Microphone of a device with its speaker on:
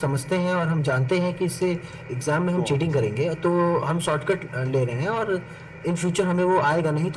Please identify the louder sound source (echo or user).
echo